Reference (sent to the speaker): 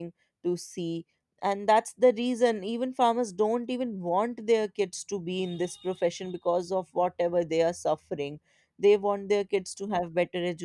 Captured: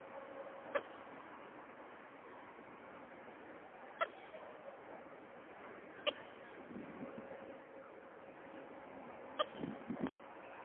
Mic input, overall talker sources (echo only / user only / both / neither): neither